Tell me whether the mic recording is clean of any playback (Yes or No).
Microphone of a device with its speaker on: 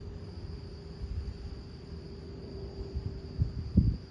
Yes